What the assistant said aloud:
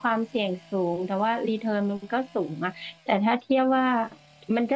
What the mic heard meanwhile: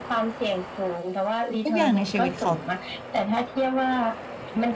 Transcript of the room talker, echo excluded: ทุกอย่างในชีวิตเขา

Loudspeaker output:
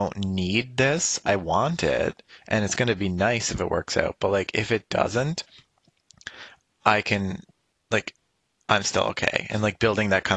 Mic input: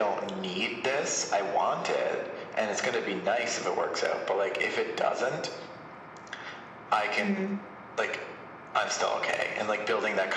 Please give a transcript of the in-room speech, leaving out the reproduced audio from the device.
Mm,

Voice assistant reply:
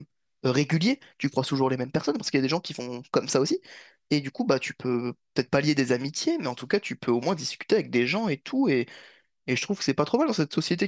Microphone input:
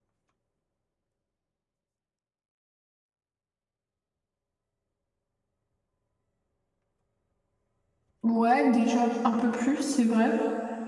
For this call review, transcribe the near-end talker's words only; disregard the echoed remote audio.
Ouais, déjà un peu plus, c'est vrai.

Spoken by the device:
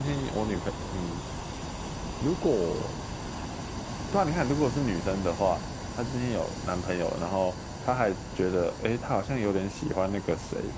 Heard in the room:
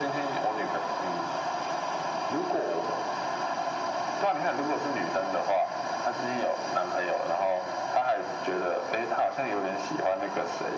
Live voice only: none

